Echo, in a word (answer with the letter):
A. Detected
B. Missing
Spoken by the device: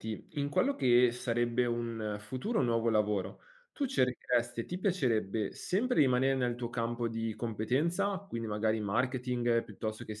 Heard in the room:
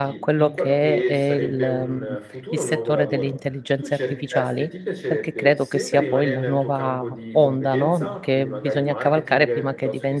A